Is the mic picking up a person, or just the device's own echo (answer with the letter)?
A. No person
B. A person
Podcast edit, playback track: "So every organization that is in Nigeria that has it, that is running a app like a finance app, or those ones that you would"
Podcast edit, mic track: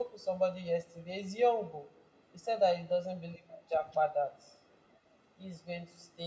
B